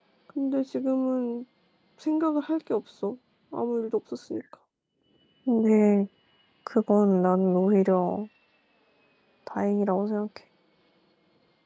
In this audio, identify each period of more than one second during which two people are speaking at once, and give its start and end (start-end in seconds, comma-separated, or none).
none